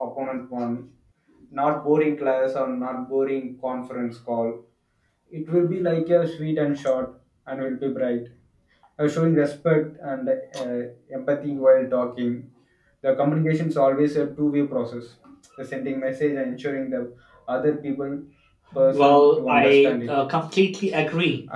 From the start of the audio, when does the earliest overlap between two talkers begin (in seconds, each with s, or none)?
18.9 s